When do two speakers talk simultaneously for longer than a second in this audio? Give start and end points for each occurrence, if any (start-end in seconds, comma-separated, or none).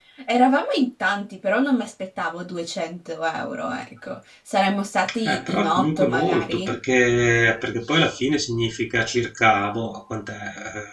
5.2-6.8